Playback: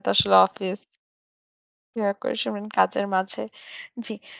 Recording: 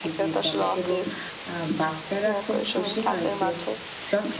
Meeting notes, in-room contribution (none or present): present